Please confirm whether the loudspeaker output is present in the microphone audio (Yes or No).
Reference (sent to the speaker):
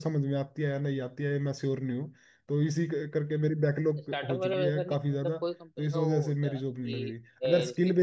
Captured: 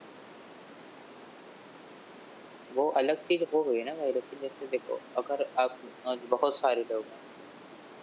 No